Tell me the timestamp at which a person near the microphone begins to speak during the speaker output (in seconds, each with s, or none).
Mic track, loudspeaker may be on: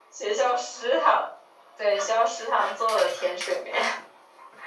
none